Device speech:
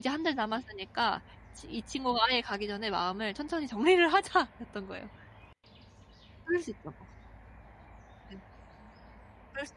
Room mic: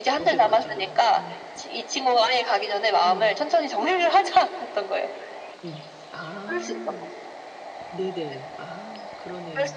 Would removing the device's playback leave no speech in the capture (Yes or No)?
No